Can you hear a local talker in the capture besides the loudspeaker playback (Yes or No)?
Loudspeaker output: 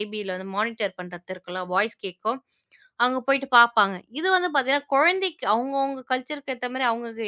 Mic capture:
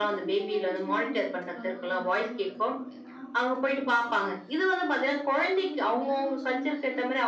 Yes